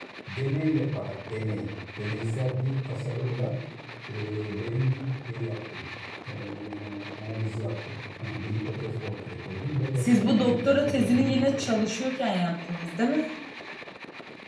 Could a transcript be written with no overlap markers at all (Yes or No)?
No